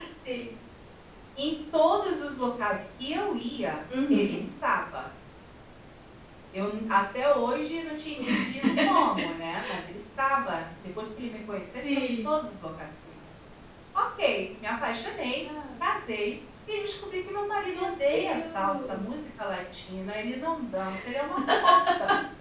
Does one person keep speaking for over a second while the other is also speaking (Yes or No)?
Yes